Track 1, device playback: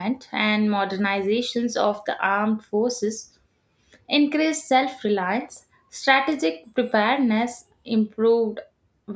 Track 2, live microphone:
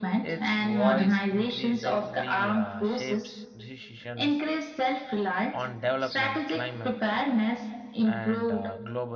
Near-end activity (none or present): present